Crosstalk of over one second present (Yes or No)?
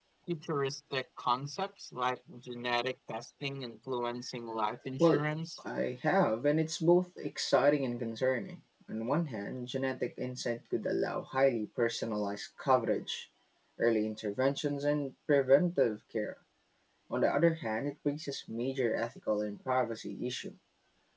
No